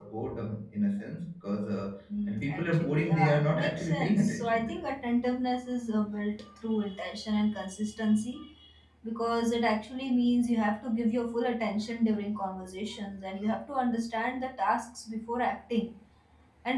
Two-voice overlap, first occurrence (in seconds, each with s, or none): 2.1 s